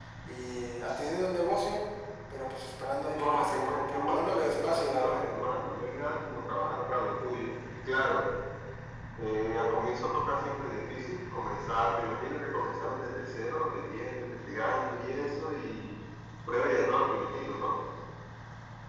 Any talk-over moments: Yes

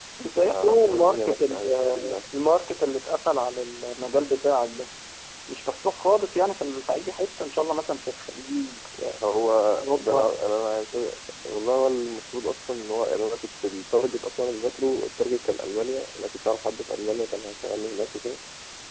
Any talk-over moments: Yes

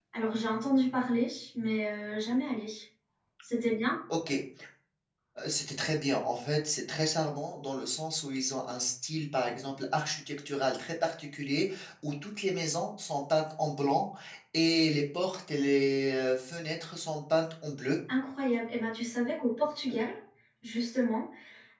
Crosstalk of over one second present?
No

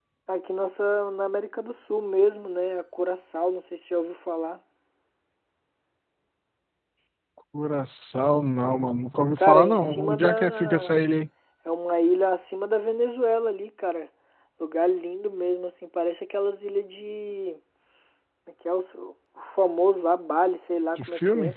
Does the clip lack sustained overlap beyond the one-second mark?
No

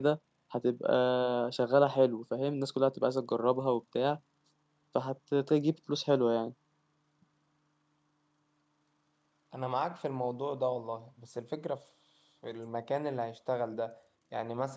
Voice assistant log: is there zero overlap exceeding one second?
Yes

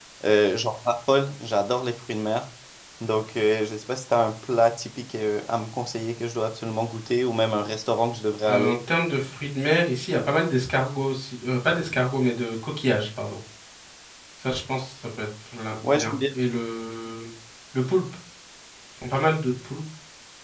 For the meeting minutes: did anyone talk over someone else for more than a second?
No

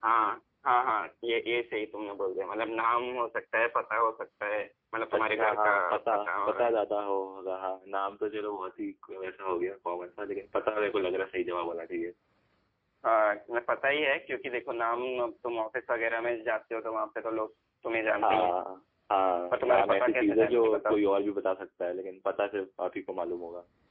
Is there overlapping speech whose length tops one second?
Yes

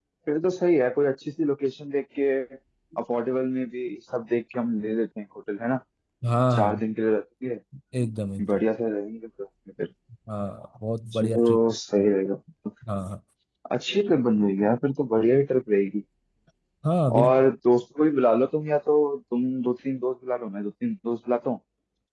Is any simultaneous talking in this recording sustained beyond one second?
No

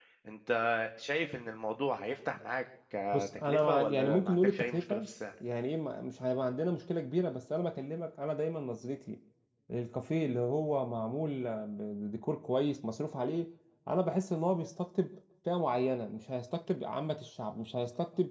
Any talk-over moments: Yes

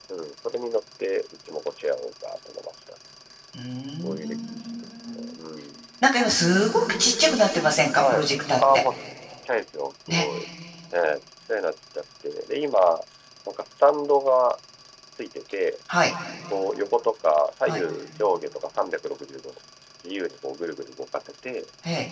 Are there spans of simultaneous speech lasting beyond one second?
Yes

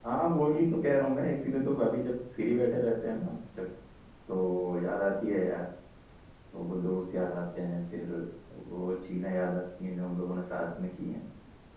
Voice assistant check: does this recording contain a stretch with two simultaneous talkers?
No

